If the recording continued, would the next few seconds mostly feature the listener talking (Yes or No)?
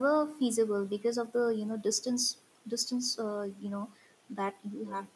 No